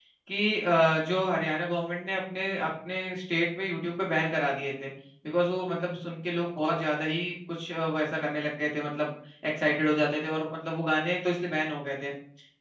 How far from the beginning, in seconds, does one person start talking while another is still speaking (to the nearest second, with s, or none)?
none